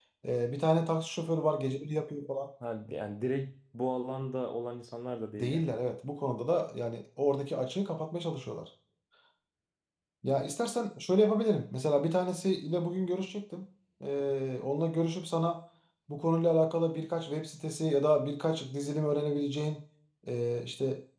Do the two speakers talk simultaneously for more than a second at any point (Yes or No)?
No